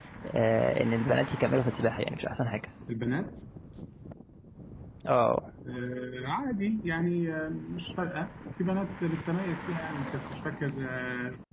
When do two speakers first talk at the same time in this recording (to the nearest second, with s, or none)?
none